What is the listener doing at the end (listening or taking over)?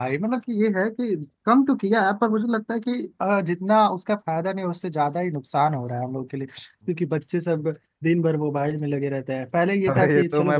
taking over